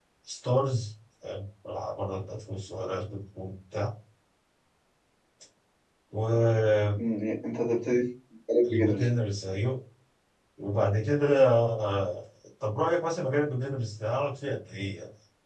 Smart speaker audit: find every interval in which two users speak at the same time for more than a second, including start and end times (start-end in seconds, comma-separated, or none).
none